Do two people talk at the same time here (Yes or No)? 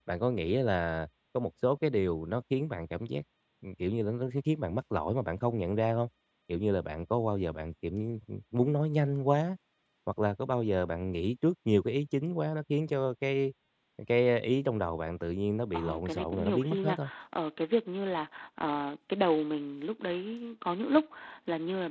Yes